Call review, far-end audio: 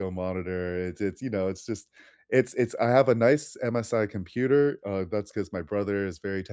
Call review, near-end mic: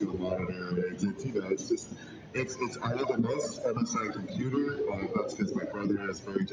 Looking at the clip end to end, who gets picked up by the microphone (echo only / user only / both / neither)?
echo only